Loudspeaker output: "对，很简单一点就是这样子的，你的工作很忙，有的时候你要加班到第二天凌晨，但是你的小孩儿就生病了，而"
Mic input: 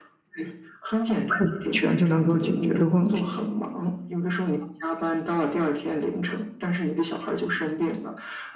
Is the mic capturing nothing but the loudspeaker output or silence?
No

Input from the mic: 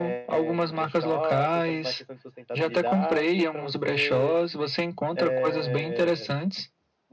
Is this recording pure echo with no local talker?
Yes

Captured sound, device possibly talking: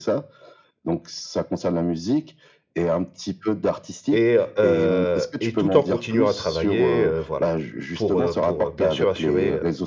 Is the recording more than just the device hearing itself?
Yes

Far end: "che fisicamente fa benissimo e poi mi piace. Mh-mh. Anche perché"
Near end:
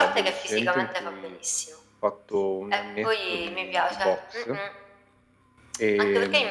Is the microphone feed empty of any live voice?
No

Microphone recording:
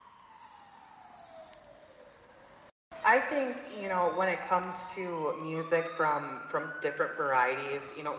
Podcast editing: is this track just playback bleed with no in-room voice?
Yes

